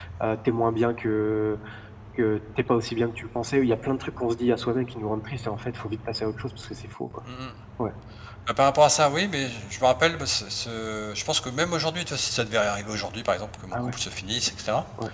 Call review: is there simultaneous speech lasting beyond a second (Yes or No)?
No